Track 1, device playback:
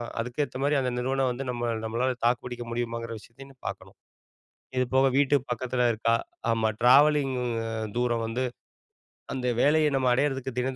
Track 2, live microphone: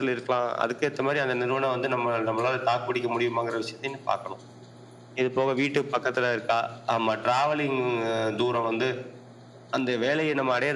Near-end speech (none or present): none